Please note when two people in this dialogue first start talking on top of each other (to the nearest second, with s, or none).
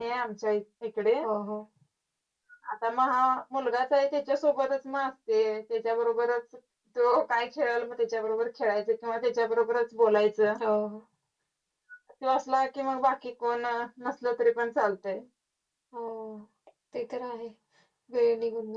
none